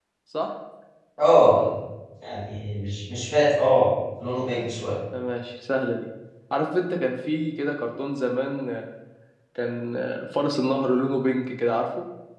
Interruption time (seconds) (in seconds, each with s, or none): none